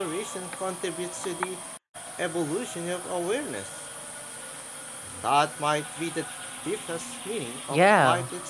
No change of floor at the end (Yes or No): No